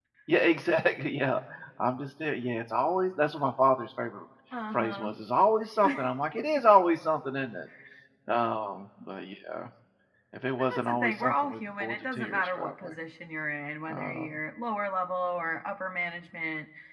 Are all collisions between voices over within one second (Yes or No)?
No